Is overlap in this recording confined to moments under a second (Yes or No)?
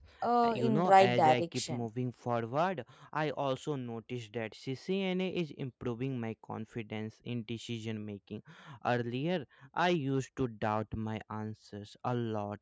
No